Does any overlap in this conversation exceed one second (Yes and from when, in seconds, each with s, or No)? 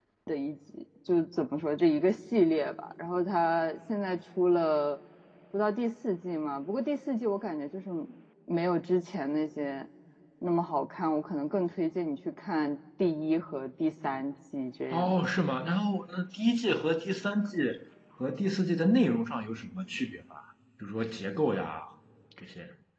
No